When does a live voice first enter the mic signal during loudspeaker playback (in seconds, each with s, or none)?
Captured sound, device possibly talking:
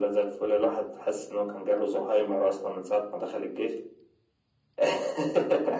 none